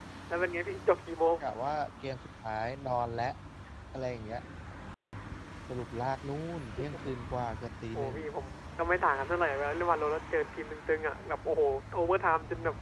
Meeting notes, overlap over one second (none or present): none